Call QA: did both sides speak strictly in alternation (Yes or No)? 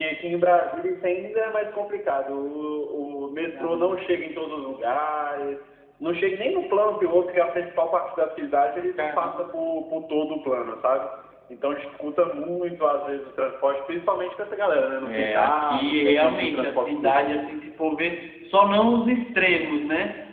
No